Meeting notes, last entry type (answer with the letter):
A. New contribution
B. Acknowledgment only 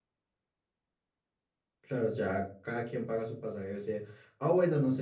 B